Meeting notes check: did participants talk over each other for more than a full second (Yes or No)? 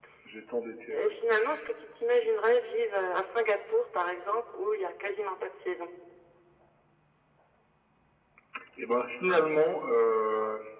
No